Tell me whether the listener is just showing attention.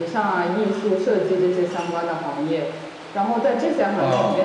Yes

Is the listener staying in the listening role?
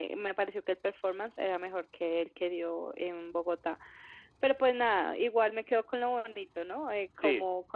Yes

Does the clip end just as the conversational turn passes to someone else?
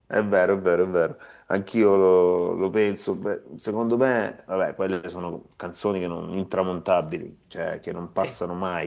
No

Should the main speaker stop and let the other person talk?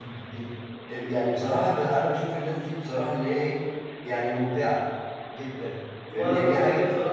Yes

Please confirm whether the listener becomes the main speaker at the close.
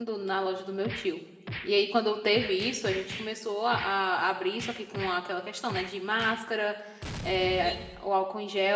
No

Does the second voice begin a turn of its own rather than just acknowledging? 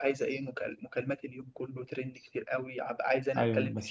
Yes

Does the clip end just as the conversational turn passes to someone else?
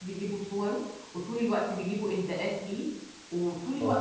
No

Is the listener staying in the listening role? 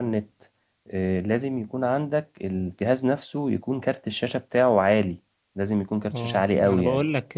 No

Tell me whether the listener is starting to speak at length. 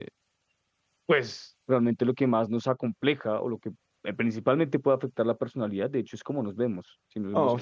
Yes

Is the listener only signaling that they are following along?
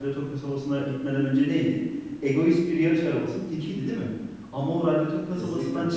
Yes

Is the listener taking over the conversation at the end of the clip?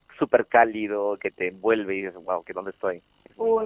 Yes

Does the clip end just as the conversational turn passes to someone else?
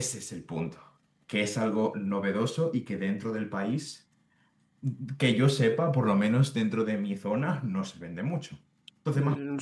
Yes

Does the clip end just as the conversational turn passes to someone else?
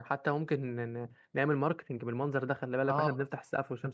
Yes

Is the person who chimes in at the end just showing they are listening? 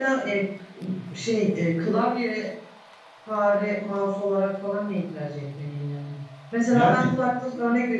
Yes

